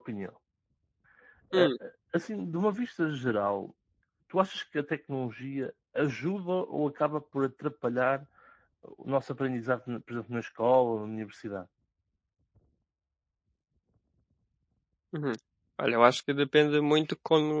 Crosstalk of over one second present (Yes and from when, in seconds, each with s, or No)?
No